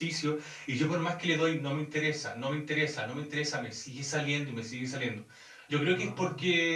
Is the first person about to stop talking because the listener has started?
No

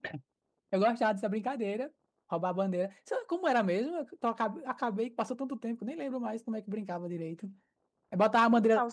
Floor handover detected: No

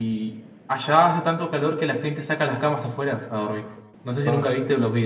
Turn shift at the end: No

